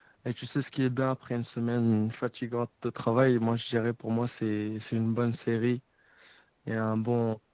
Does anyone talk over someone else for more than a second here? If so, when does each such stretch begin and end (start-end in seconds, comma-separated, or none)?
none